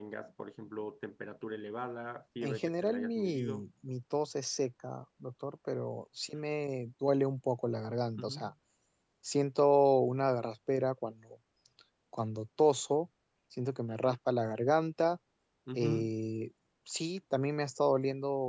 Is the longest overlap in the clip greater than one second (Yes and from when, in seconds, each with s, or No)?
Yes, from 2.4 s